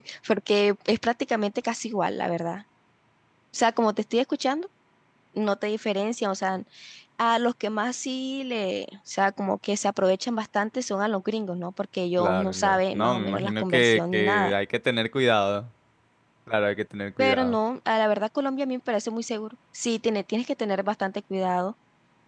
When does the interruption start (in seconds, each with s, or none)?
12.2 s